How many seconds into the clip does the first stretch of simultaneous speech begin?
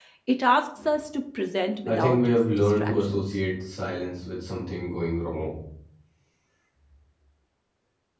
2 s

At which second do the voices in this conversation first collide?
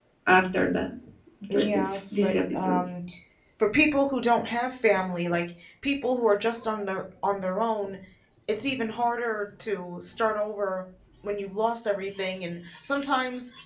2 s

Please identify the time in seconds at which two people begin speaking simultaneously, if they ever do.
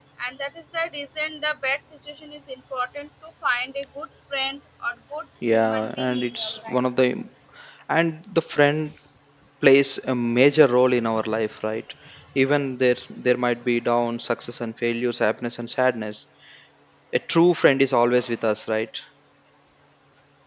5 s

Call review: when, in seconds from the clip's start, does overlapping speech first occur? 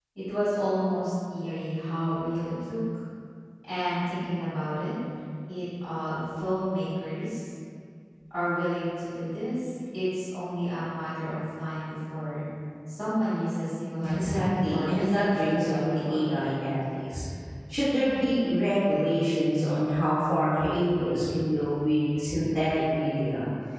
14 s

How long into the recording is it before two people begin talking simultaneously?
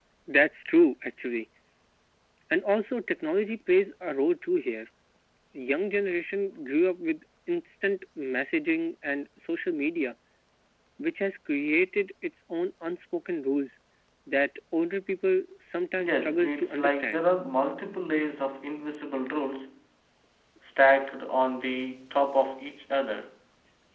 16 s

